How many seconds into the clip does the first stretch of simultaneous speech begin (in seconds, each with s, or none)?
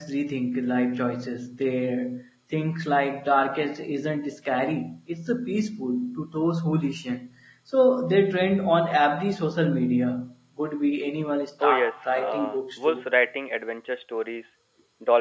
11.6 s